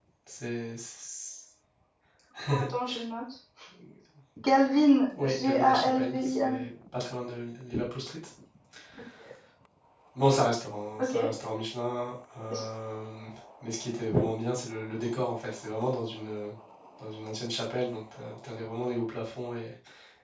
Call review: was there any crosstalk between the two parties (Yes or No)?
Yes